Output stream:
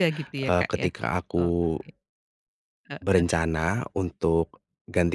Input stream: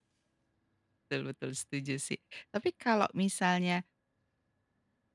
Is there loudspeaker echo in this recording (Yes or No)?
No